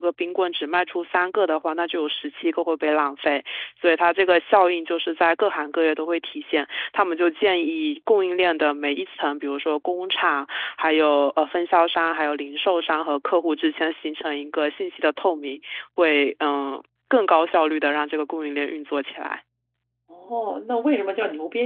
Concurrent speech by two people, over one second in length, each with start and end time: none

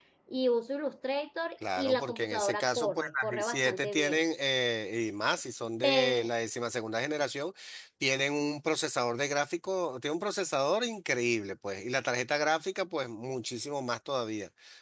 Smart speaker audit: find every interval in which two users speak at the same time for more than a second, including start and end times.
1.8-4.2

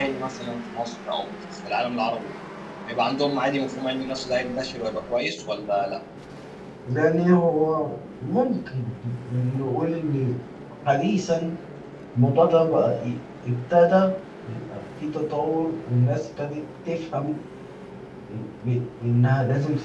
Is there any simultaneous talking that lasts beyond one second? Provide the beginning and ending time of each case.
none

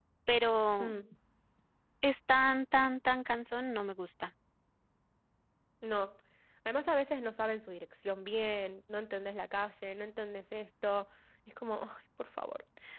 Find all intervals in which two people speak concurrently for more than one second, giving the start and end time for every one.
none

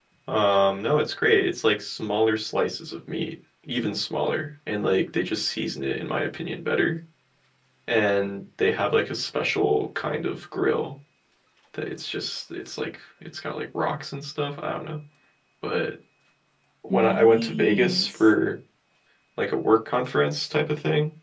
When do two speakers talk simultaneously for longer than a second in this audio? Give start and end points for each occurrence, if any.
16.9-18.2

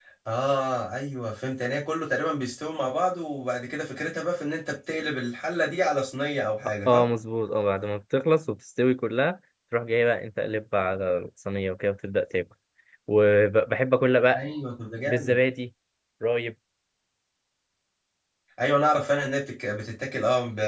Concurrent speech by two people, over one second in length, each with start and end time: none

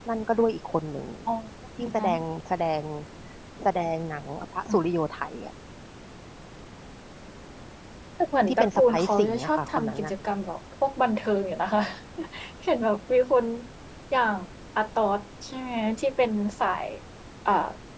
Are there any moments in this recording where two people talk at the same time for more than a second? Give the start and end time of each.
8.5-10.1

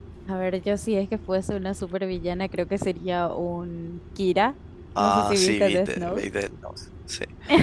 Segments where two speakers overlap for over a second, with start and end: 5.0-6.2

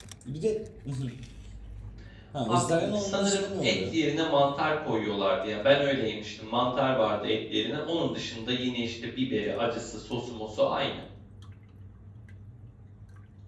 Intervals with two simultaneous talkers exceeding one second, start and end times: 2.5-3.9

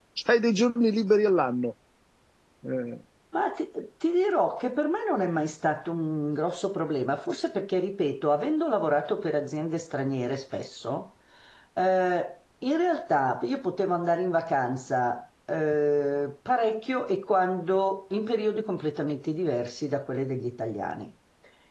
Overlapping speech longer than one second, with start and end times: none

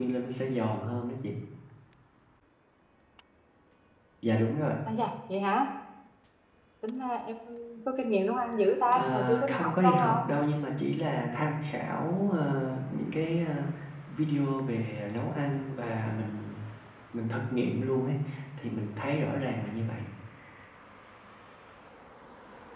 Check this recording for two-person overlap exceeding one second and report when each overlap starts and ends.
8.9-10.3

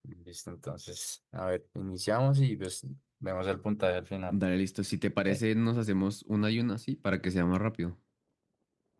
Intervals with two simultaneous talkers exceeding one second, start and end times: none

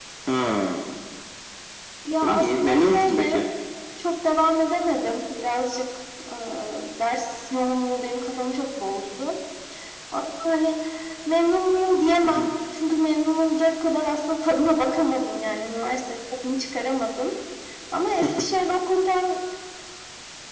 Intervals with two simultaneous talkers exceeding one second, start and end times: 2.2-3.4

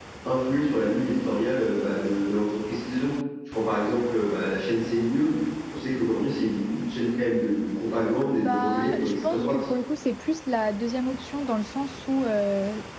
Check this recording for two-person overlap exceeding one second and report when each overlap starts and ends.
8.4-9.6

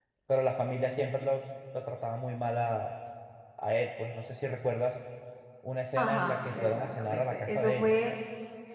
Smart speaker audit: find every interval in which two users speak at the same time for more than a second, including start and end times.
6.0-7.9

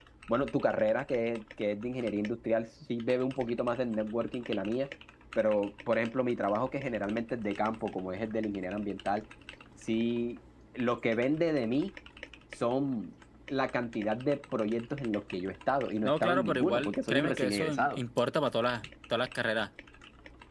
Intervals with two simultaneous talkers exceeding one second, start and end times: 16.0-18.0

